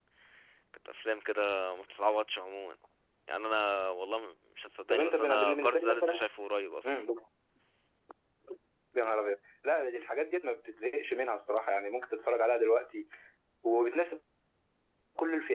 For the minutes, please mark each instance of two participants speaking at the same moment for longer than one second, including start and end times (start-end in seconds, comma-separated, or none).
4.9-6.2